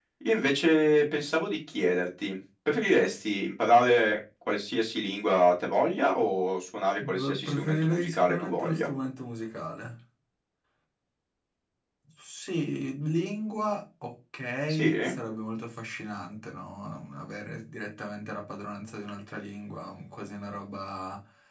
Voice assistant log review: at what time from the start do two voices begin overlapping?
7 s

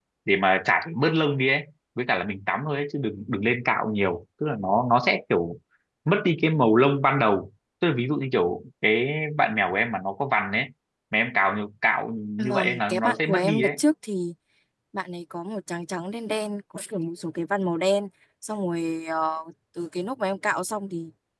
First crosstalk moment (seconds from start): 12 s

